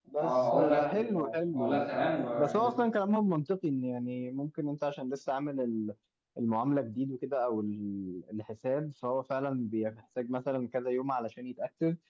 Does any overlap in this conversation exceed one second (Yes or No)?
Yes